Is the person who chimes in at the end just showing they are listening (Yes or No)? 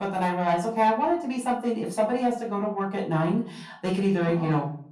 Yes